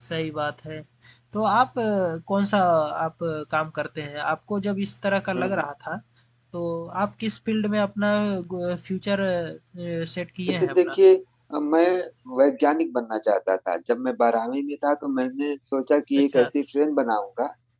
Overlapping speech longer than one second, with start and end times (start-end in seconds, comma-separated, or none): none